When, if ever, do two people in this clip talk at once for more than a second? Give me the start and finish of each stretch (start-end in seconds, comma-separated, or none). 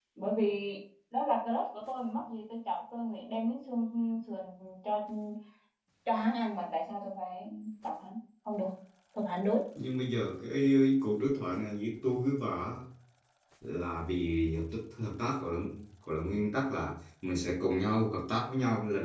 none